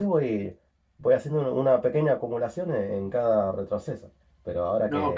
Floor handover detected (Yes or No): No